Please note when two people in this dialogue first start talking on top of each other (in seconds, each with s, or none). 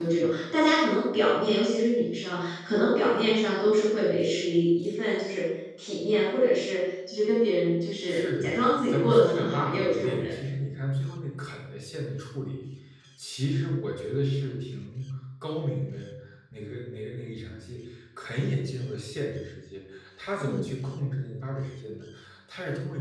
8.1 s